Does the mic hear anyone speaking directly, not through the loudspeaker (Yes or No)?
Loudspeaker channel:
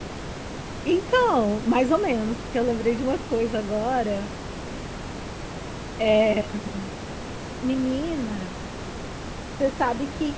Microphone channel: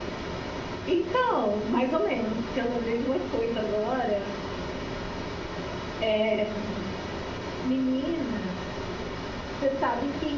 No